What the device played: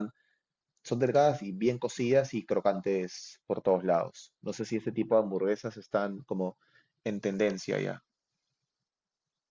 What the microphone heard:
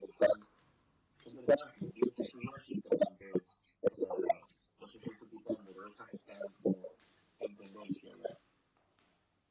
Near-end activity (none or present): none